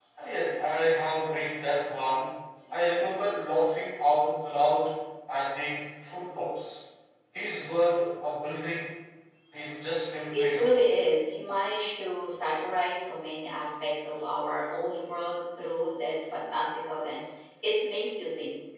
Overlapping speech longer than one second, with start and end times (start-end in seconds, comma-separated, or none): none